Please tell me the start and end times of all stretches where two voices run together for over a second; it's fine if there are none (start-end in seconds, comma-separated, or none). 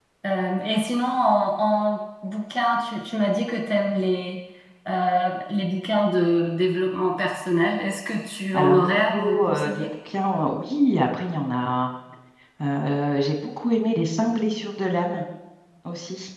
8.5-9.8